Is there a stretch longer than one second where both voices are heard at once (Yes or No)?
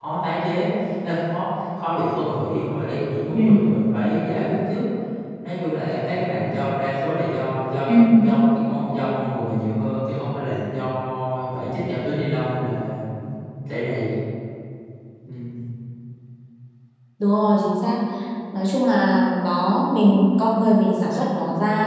No